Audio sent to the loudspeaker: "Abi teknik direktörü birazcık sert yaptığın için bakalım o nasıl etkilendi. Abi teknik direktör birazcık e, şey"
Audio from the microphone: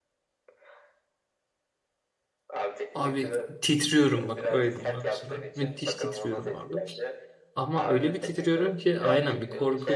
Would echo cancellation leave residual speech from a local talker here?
Yes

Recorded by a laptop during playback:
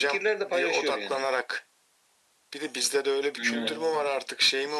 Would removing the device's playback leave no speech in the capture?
No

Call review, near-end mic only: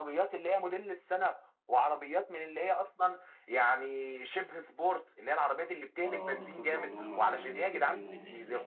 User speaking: Yes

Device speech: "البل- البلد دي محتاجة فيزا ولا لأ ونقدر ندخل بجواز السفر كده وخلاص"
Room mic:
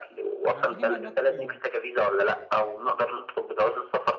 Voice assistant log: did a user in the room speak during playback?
Yes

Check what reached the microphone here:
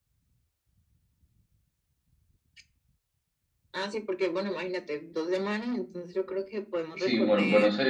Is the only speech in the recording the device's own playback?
No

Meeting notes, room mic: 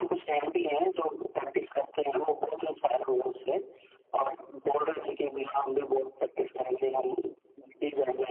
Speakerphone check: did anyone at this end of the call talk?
No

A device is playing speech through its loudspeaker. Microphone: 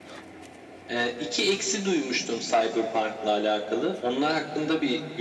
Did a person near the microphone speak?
No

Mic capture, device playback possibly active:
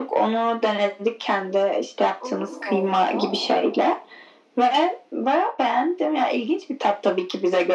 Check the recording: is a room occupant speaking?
Yes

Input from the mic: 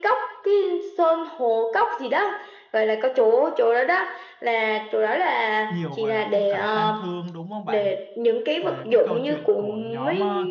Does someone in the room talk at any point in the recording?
Yes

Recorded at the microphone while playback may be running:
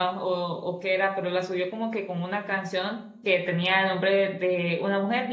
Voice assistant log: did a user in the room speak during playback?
Yes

